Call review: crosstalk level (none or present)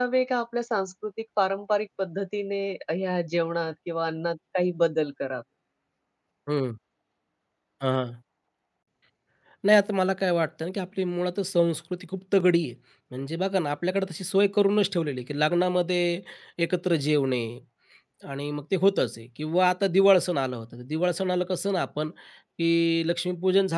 none